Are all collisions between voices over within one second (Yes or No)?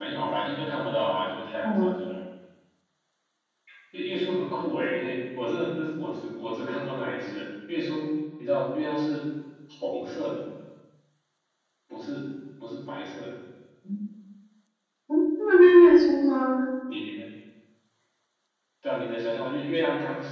Yes